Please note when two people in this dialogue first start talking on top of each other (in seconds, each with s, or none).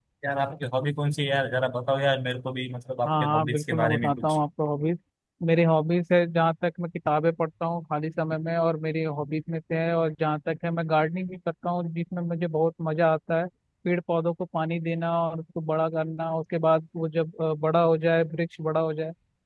3.0 s